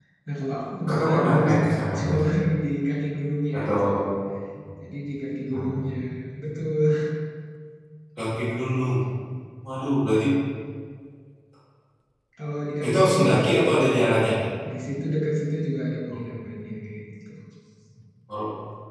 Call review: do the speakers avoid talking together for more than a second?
No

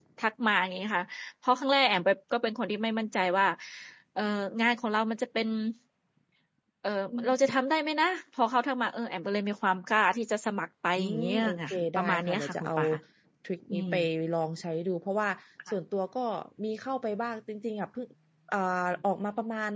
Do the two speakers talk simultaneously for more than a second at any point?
Yes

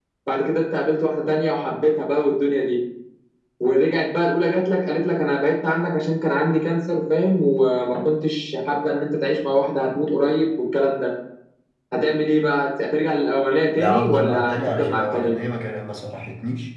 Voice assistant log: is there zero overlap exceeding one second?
No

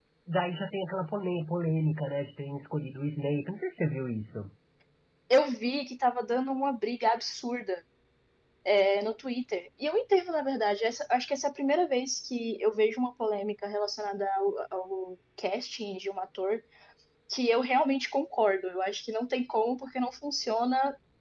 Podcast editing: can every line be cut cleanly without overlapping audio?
Yes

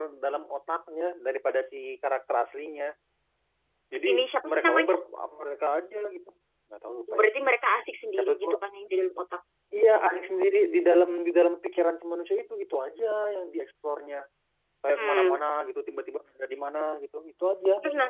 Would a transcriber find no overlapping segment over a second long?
Yes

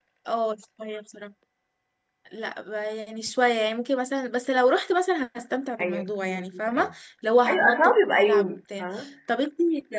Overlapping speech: Yes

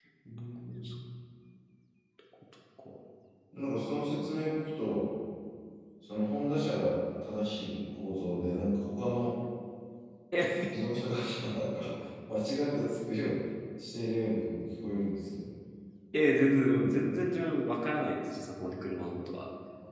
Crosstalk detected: No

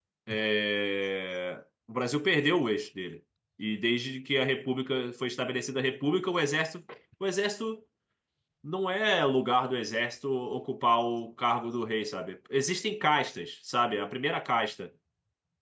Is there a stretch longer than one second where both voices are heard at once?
No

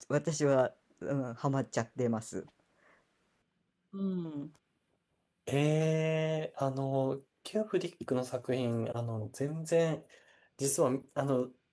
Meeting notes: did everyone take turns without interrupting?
Yes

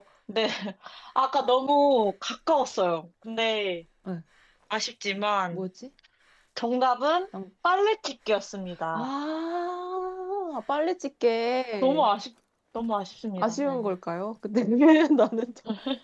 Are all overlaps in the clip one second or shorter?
Yes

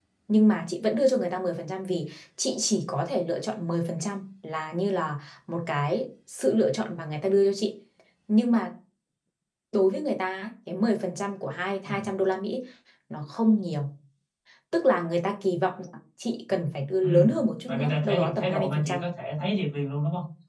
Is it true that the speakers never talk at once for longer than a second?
No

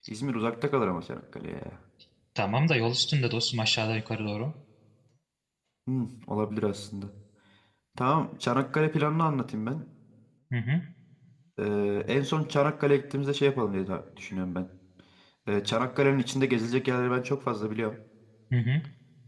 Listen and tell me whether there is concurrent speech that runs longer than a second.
No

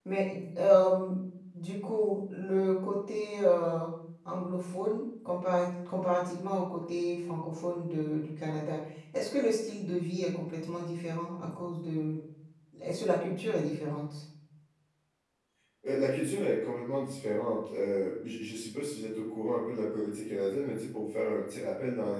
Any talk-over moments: No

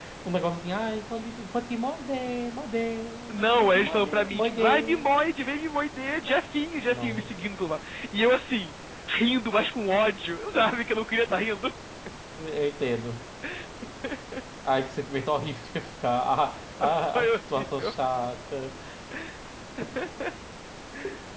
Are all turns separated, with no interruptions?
No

